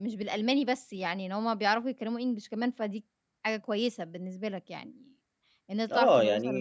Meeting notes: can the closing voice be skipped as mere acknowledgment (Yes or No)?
No